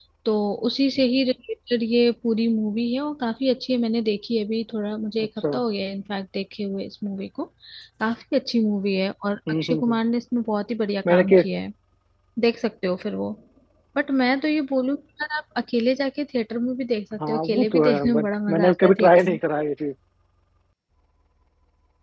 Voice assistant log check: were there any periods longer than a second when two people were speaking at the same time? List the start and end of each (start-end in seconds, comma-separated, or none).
17.3-19.2